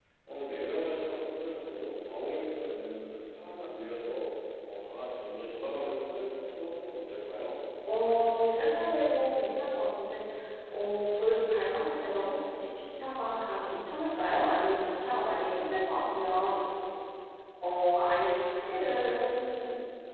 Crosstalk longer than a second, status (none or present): none